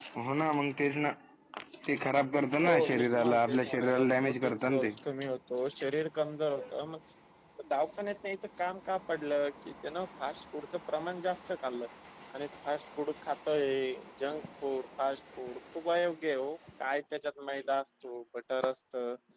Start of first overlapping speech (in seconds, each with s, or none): 2.6 s